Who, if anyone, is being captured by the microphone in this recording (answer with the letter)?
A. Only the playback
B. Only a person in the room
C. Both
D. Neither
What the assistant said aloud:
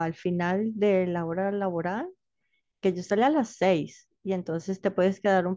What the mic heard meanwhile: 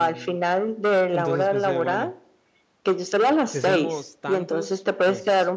C